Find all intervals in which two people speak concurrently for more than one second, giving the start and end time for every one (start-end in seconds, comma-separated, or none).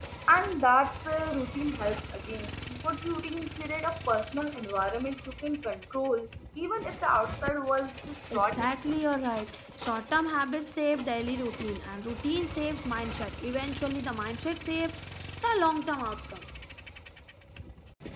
none